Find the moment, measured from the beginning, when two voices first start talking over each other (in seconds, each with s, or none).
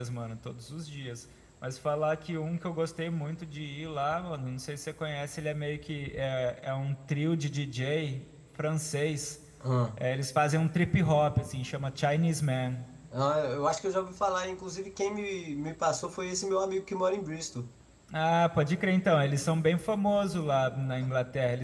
none